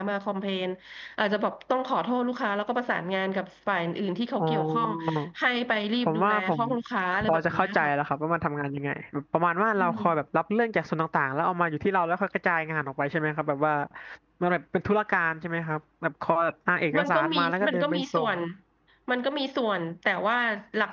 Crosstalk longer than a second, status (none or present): present